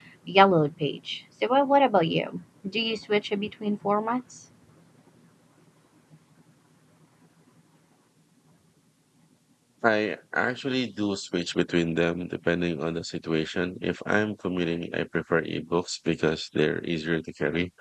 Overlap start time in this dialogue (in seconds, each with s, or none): none